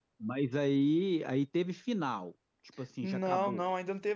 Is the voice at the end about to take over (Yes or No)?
Yes